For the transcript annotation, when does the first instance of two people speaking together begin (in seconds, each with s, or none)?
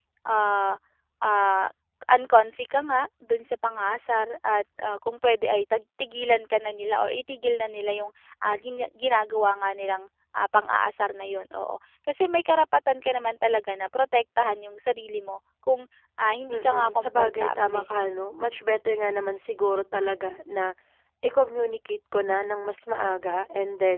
16.5 s